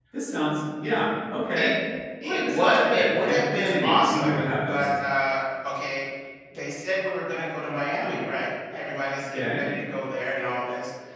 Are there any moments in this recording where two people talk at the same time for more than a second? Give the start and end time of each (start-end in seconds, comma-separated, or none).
2.2-4.9